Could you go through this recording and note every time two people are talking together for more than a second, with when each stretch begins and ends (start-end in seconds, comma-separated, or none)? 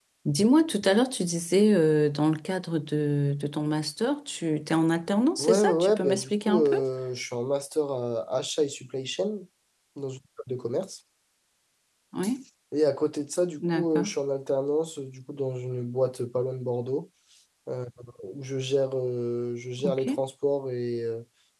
5.4-6.8